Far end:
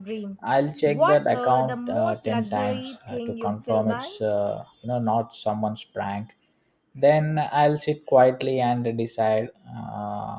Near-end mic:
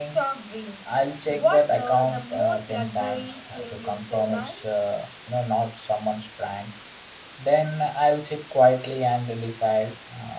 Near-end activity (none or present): none